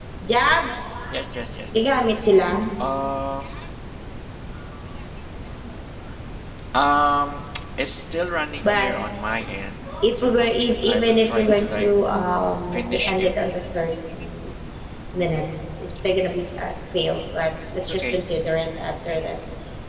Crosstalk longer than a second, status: present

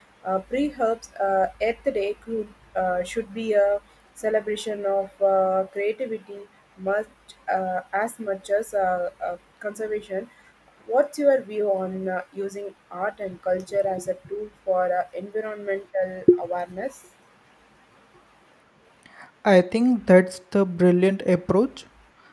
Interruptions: none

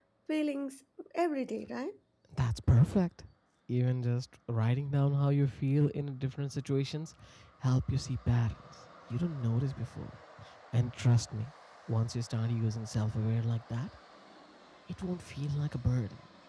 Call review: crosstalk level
none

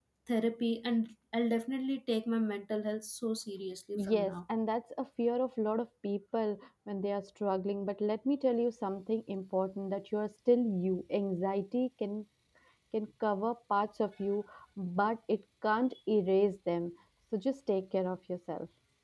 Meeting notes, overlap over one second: none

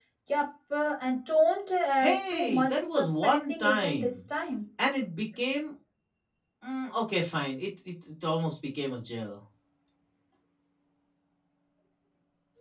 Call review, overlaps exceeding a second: present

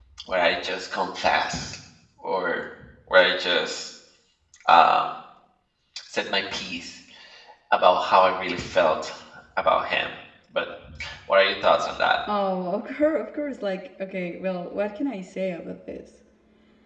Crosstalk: none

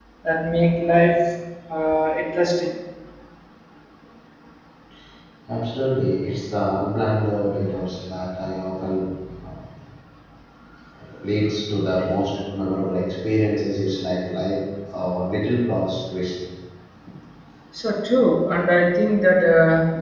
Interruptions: none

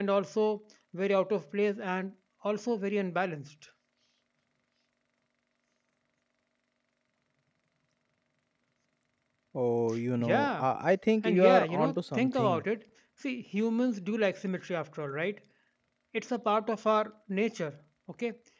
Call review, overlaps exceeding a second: present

